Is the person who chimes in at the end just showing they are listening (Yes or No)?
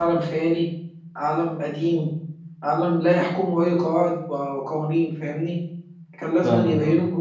Yes